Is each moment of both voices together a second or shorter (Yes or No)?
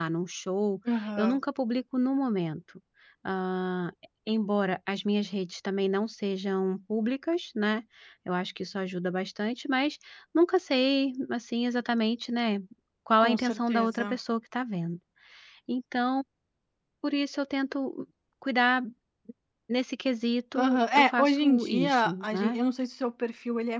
No